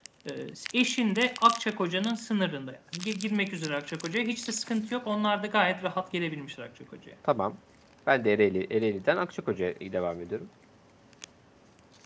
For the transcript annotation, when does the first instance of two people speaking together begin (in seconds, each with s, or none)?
none